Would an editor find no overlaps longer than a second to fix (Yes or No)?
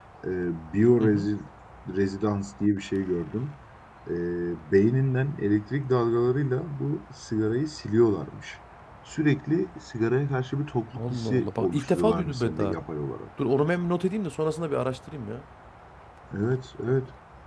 No